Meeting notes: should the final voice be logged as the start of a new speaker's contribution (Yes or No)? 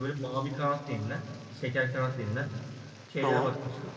No